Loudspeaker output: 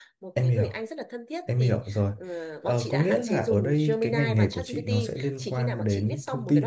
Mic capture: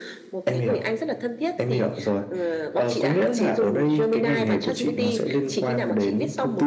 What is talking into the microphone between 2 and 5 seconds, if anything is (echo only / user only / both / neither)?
echo only